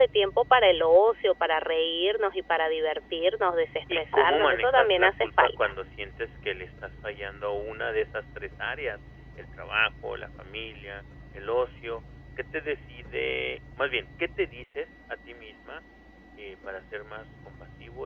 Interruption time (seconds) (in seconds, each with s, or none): 3.9 s